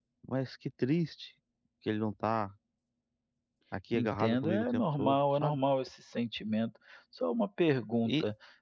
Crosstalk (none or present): present